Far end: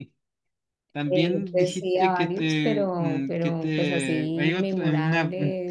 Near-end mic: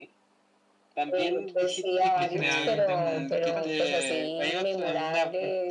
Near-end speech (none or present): present